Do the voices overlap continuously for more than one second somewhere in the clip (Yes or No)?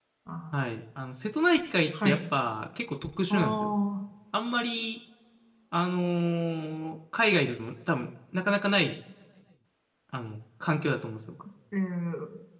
No